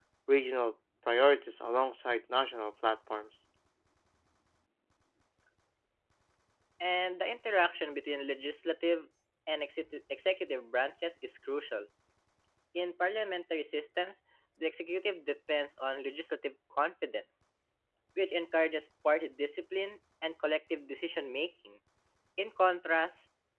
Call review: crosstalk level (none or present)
none